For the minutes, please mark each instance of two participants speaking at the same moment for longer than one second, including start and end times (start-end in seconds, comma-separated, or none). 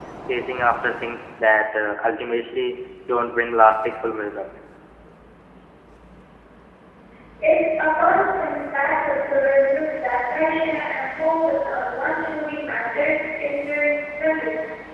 none